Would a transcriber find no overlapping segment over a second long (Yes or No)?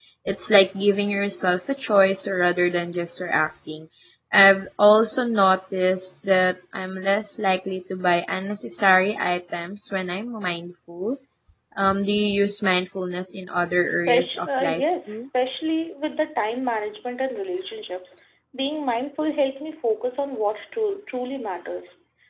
No